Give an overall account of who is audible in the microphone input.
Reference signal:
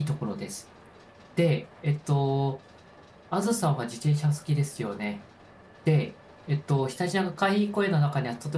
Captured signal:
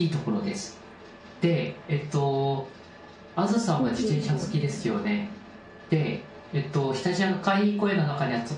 both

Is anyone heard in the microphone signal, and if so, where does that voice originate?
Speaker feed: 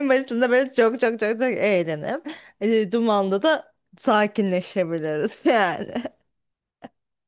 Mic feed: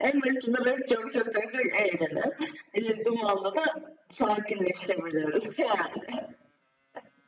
echo only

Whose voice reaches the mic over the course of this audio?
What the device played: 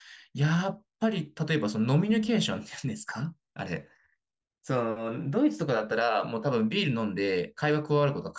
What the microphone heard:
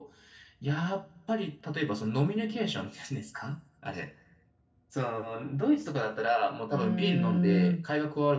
both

